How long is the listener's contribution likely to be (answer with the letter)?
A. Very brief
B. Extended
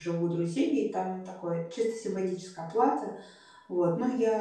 A